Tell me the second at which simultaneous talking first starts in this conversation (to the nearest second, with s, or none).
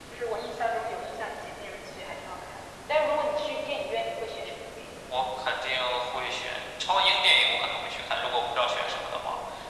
none